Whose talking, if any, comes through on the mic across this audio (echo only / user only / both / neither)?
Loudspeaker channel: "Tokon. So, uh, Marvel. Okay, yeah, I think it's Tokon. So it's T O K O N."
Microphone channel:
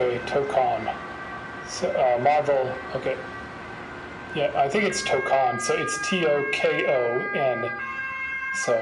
echo only